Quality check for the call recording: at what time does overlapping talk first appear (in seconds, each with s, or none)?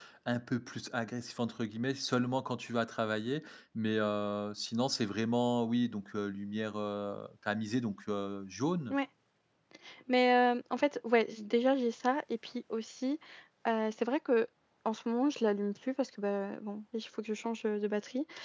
none